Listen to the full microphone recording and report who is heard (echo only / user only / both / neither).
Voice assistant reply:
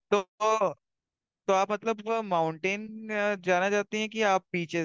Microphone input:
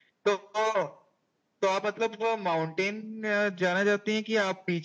echo only